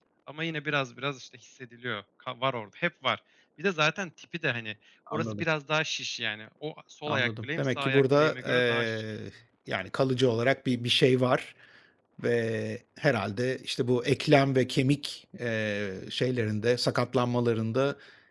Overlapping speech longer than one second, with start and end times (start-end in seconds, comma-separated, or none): 7.1-9.0